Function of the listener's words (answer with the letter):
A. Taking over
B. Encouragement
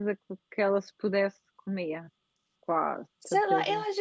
A